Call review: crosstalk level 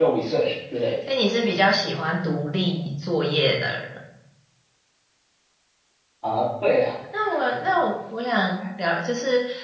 none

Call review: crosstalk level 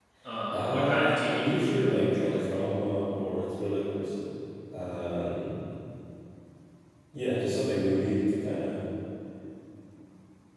present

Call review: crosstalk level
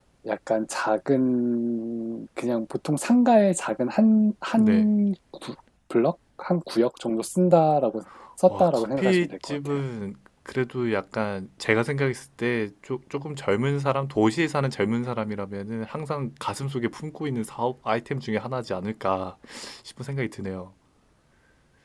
present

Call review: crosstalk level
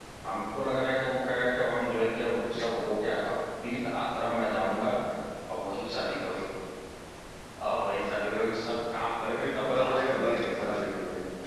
present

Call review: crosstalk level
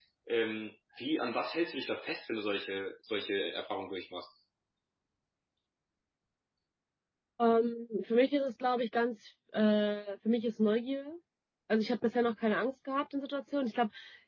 none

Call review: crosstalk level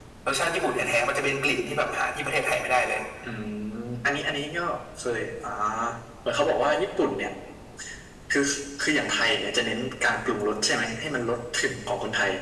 none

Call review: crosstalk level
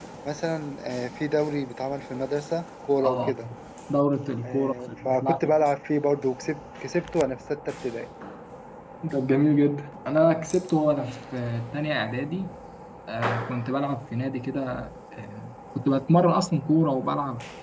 present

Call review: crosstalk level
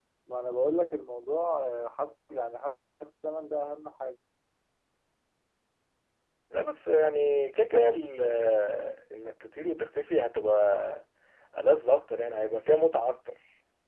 none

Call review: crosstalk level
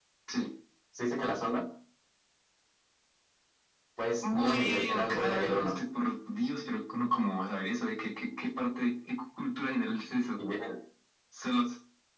present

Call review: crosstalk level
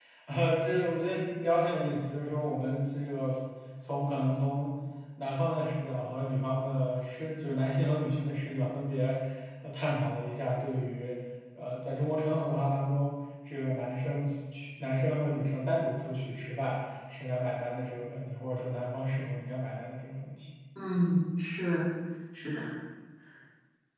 none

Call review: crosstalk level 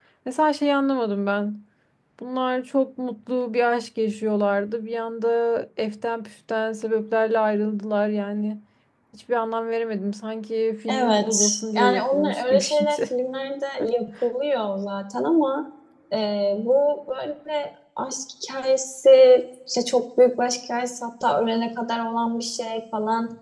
present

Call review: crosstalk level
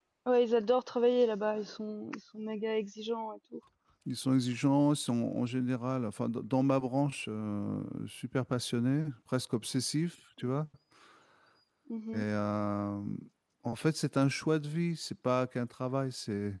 none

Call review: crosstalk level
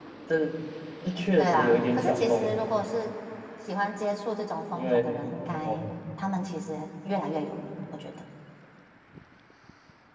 present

